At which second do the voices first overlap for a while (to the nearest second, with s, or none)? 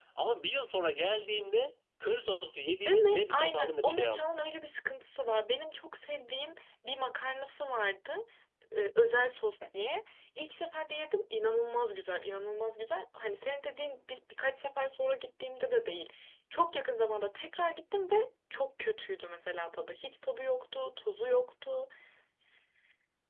3 s